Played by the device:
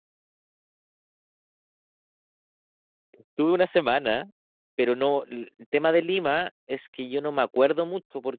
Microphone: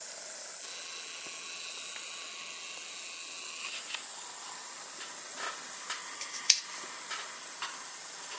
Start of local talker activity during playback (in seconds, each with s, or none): none